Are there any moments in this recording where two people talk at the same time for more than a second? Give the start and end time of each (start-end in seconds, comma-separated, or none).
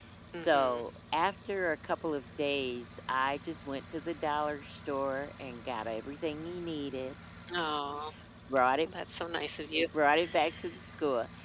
none